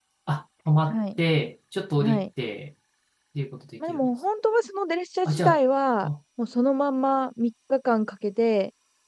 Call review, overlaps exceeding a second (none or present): none